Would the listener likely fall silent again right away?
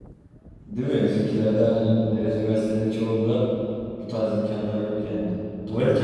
No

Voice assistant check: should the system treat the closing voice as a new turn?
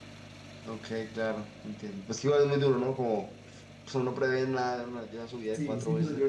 Yes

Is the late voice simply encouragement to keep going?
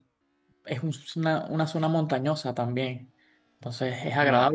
Yes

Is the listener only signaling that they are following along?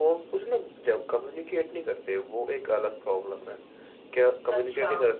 Yes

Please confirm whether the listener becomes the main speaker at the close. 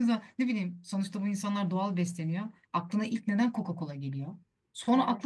No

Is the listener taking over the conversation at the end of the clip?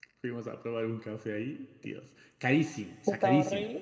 No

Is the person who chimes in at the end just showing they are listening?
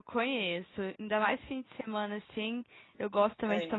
Yes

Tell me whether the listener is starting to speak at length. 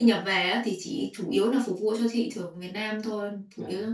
Yes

